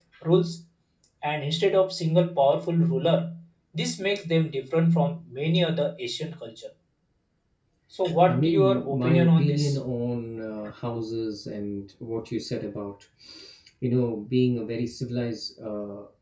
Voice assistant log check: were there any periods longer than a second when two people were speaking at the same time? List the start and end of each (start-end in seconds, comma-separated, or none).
8.3-9.8